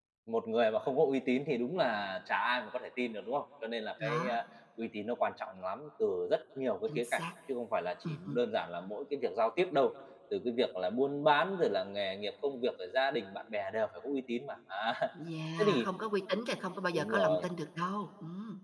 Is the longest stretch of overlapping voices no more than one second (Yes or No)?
Yes